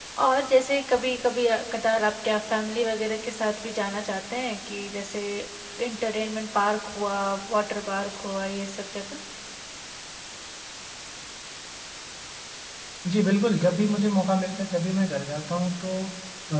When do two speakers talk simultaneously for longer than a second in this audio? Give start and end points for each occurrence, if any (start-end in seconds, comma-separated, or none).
none